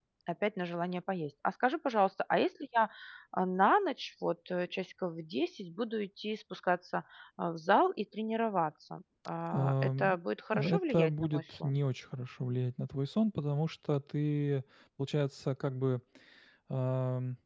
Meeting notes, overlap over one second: present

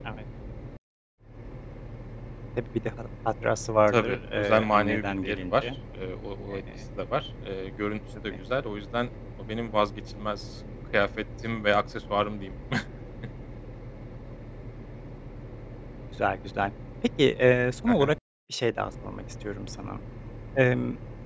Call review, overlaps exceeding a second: present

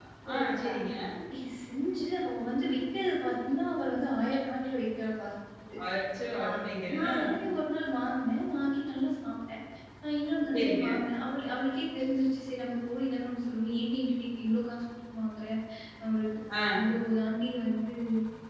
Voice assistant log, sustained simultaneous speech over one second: none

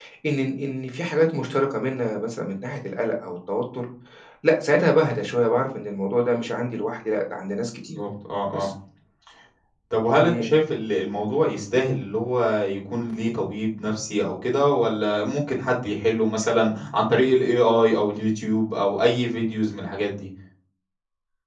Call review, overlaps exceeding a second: none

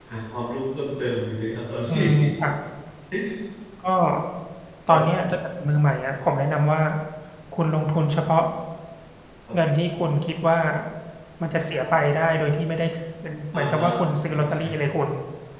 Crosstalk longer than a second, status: none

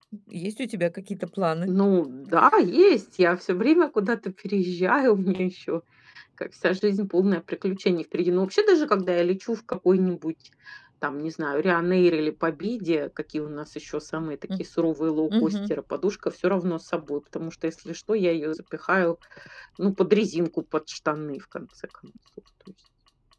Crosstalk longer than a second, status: none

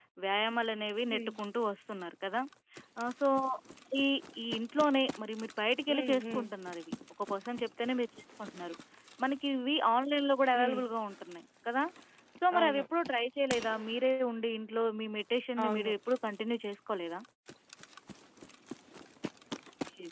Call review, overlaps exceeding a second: none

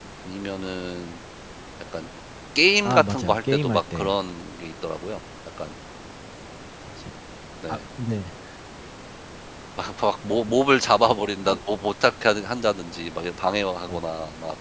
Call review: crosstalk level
present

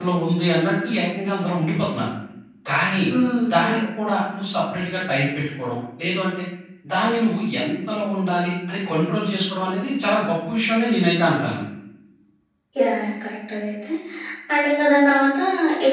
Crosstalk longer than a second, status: none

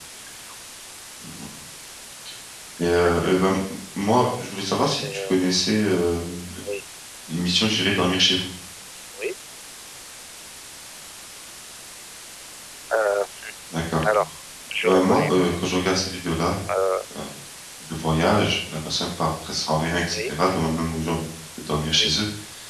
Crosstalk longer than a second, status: none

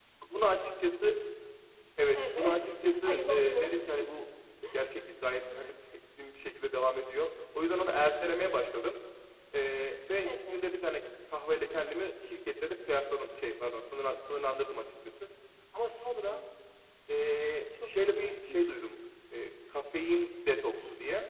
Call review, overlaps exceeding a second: present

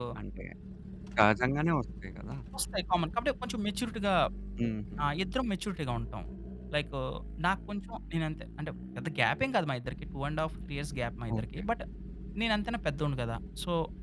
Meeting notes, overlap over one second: none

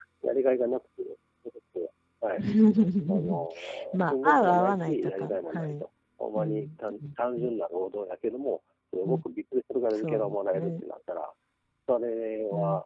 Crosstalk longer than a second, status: present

